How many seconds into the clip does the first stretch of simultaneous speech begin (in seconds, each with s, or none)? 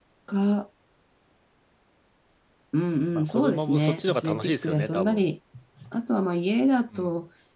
3.1 s